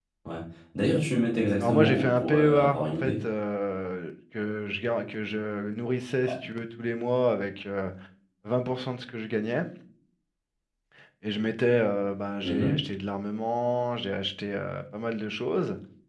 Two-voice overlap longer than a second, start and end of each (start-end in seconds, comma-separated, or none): 1.6-3.2